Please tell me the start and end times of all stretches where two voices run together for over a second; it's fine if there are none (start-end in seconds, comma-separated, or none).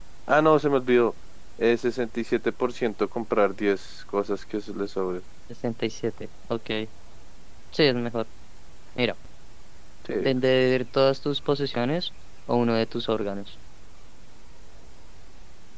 none